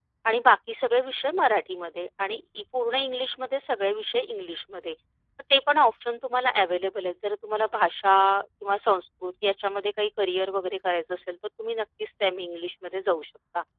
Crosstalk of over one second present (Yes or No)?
No